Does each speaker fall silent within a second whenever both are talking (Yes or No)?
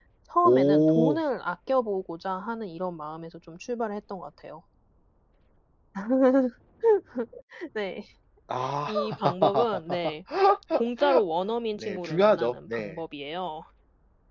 No